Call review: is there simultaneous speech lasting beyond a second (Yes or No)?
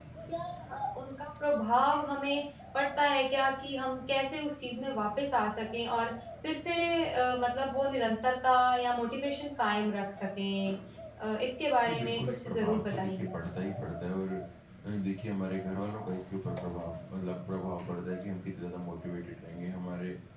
Yes